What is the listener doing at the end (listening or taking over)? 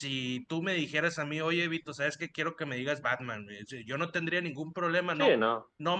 listening